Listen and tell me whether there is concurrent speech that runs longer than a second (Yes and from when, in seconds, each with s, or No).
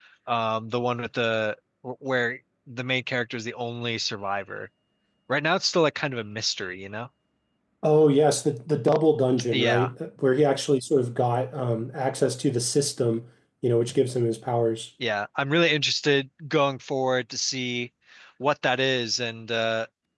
No